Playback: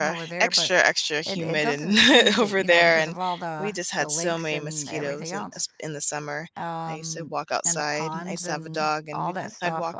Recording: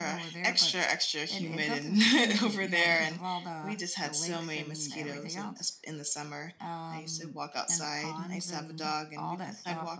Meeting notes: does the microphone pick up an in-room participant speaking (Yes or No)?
No